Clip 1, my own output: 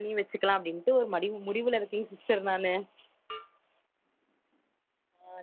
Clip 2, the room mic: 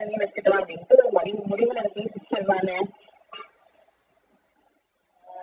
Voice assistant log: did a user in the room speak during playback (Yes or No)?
No